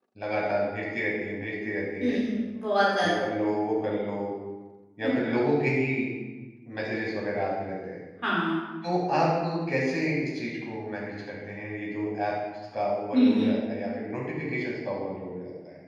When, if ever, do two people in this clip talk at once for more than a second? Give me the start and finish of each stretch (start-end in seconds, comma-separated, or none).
none